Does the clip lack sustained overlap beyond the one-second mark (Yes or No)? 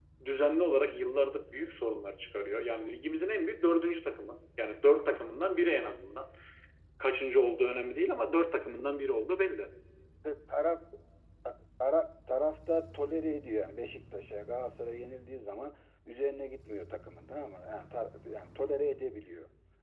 Yes